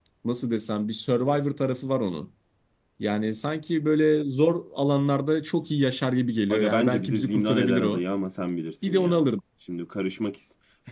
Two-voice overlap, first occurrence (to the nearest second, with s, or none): 7 s